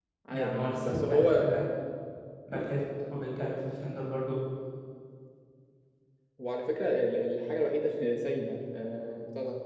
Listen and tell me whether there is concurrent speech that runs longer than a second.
Yes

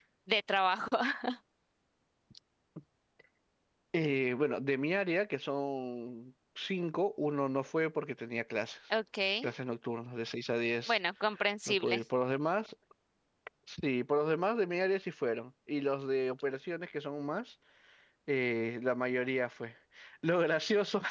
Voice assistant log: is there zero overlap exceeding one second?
Yes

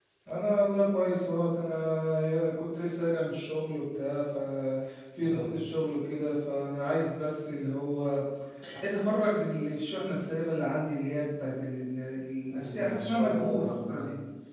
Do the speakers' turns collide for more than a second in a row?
Yes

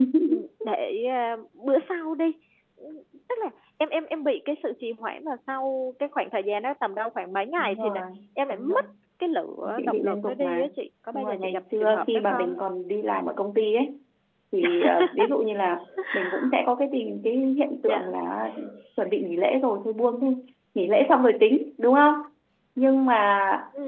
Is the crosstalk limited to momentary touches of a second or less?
No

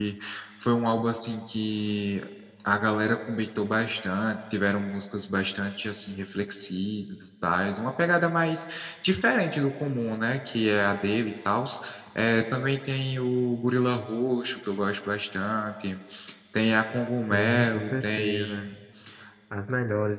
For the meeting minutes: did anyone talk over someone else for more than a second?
Yes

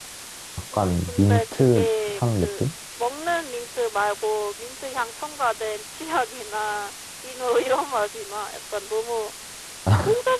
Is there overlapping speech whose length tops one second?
Yes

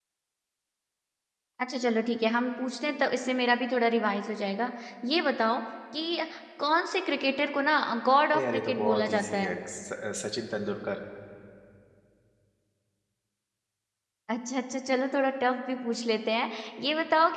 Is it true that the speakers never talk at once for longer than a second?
No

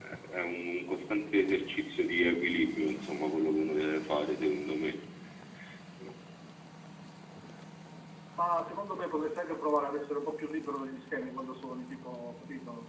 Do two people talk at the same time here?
No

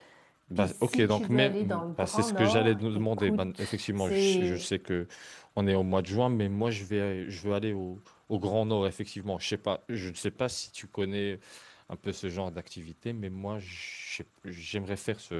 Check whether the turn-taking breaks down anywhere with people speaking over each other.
Yes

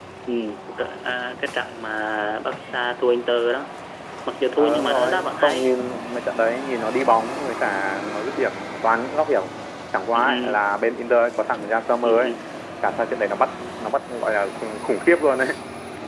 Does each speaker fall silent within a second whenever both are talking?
No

